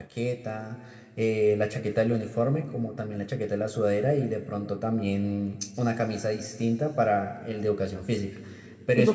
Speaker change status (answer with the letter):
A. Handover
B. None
A